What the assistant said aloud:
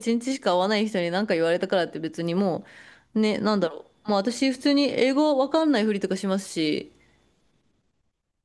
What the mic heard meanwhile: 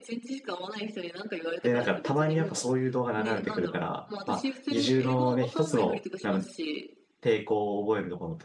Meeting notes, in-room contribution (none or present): present